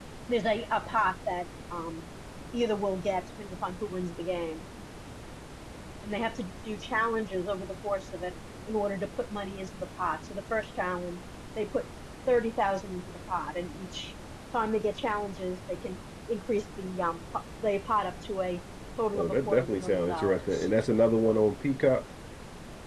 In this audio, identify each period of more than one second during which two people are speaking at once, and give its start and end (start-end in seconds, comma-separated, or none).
19.1-20.6